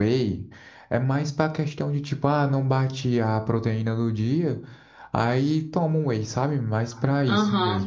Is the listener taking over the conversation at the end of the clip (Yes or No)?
Yes